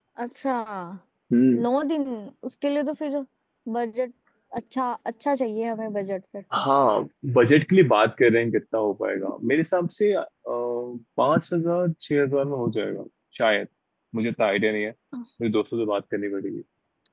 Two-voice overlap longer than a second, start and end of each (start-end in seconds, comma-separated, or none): none